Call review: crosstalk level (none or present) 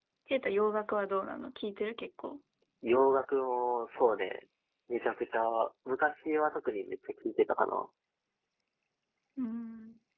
none